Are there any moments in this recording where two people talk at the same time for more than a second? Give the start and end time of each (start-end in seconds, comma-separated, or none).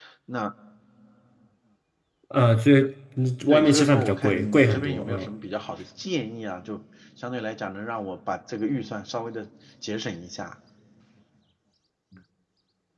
3.5-5.3